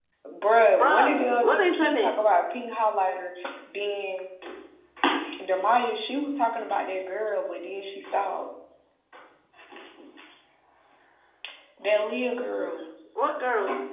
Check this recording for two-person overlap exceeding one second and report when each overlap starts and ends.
0.7-2.2

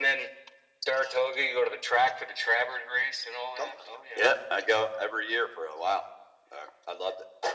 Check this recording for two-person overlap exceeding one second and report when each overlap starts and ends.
none

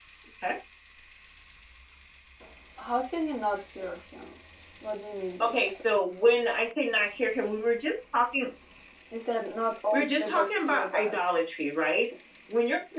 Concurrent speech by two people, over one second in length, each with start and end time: 9.9-11.2

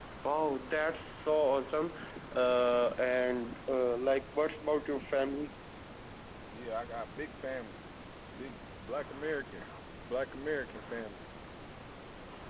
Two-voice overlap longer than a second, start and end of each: none

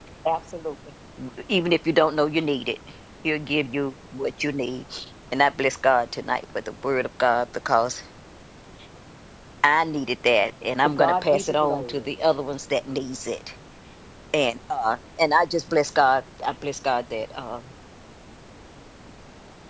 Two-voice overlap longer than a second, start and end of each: 10.8-12.1

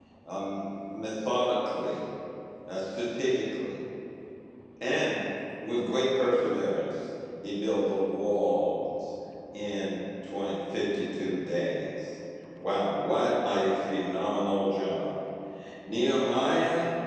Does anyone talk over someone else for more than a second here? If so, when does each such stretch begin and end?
none

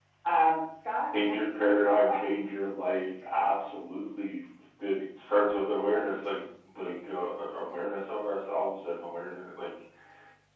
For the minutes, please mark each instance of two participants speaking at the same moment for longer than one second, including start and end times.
1.3-2.5

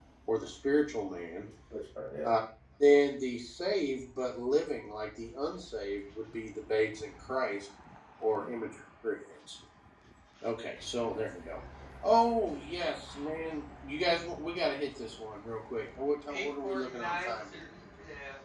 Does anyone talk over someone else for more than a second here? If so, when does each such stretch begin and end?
16.3-17.7

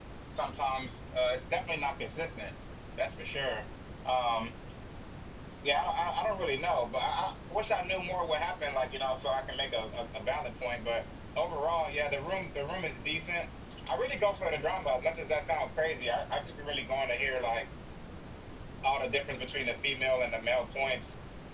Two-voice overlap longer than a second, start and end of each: none

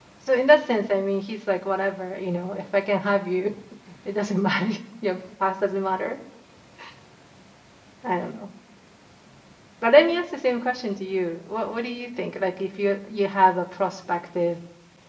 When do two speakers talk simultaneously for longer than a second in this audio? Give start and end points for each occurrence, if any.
none

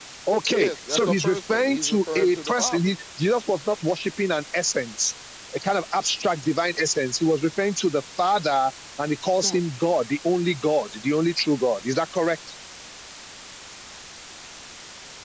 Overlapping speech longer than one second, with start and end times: 0.6-2.8

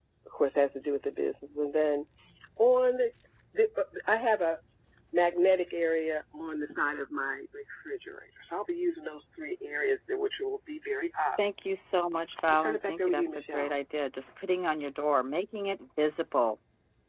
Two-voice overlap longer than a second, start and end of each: 12.5-13.7

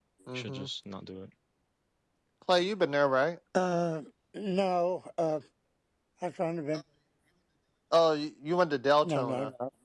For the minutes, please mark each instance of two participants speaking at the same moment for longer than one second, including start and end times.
none

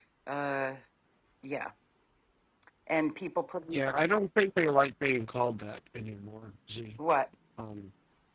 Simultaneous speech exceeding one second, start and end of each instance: none

